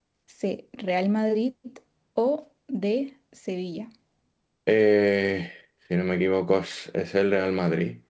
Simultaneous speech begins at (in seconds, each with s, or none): none